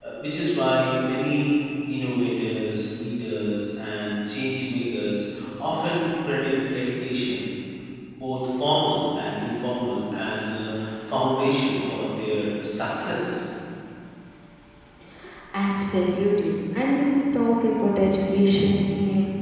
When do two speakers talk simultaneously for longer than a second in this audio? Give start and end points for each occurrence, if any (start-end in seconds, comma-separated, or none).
none